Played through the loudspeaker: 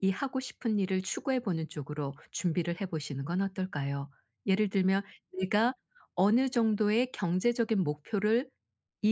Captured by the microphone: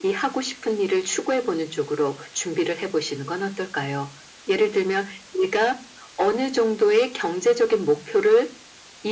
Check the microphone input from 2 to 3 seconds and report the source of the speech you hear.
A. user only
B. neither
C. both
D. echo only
D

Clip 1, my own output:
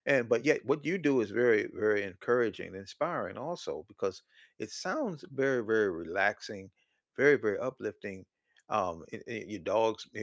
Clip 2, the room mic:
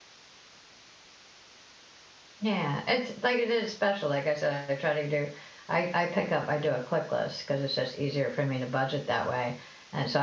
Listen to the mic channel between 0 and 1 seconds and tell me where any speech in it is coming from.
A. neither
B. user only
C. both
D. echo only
A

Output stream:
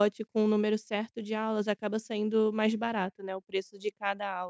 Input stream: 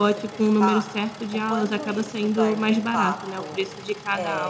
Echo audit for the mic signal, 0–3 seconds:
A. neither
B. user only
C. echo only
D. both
D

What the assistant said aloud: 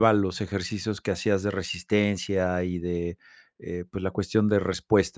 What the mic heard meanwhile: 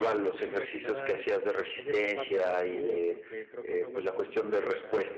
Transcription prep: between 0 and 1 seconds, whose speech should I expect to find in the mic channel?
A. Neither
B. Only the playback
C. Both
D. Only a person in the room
C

